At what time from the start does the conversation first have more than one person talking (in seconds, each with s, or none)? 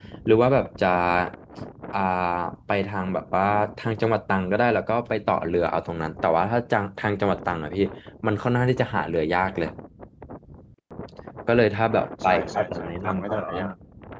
12.0 s